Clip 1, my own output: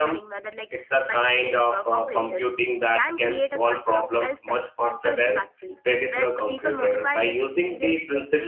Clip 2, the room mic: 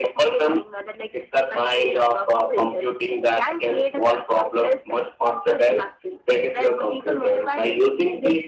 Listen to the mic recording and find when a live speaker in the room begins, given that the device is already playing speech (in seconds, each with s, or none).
none